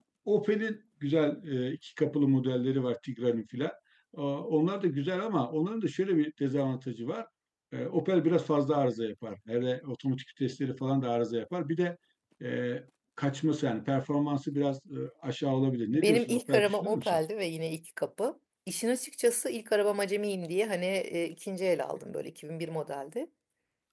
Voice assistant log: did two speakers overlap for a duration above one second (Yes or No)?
Yes